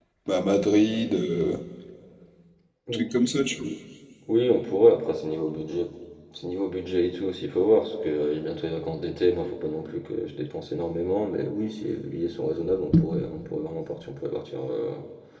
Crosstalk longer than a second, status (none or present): none